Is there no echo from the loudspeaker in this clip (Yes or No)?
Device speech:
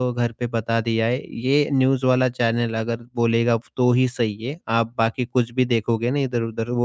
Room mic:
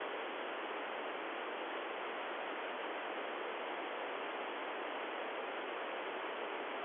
Yes